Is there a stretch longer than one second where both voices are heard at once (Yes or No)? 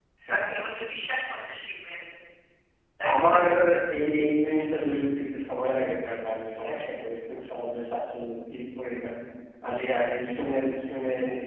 No